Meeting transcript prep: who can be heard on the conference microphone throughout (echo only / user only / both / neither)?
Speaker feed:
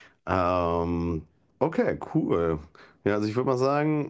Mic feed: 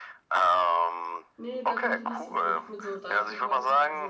both